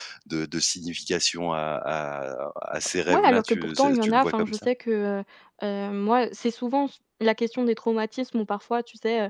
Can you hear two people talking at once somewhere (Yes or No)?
Yes